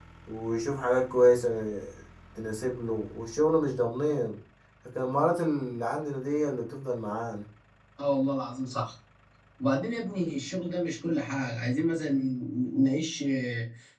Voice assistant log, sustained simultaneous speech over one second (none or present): none